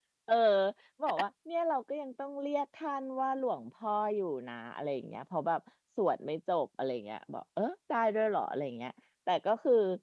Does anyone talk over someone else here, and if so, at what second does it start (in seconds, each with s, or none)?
none